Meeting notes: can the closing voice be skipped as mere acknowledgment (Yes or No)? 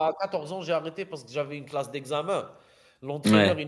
Yes